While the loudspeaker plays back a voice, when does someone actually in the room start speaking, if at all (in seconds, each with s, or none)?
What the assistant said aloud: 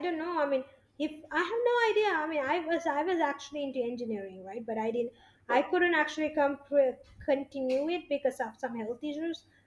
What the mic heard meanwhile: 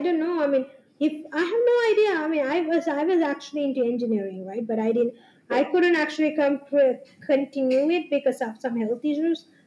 none